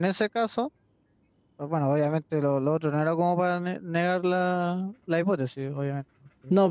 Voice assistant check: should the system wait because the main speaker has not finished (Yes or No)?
No